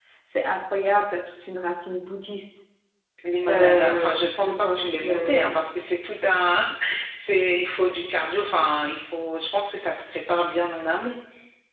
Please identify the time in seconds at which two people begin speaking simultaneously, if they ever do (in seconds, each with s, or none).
3.5 s